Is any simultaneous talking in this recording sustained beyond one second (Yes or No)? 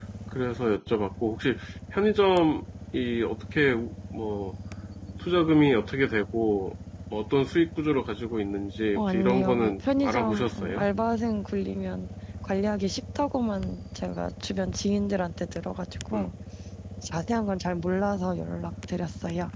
Yes